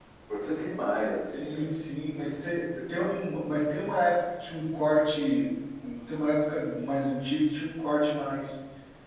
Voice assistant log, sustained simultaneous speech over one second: none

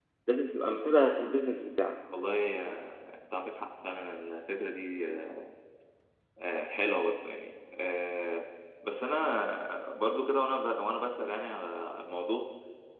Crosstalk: none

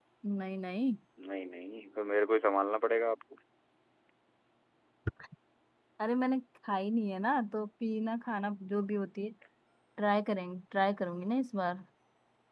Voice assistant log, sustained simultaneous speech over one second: none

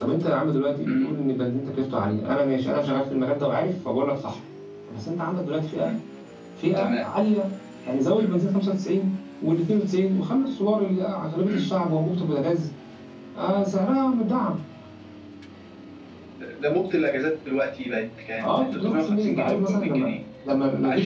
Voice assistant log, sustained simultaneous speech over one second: present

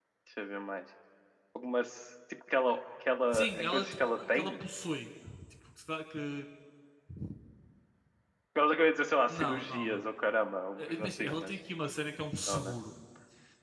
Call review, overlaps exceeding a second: present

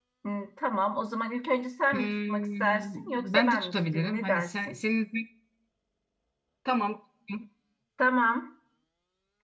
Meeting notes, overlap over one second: present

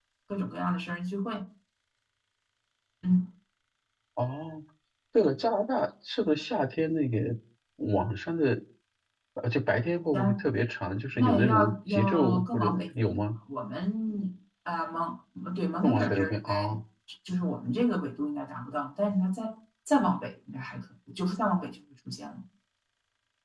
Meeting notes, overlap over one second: present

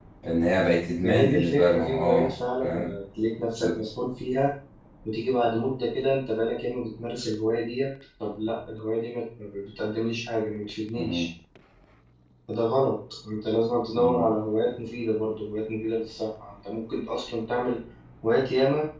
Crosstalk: present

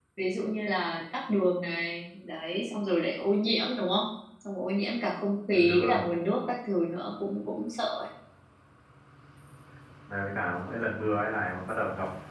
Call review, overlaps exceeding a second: none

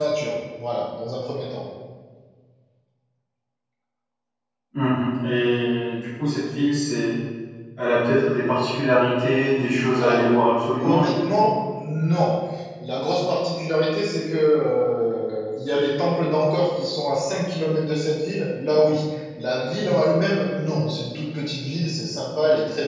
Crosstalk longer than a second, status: none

